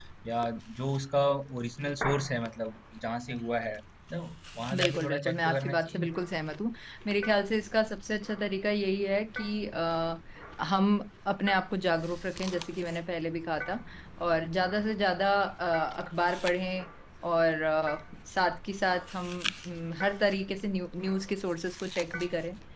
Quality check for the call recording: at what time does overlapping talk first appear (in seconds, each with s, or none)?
4.7 s